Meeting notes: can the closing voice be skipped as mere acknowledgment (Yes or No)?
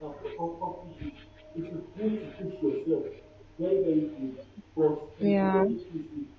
Yes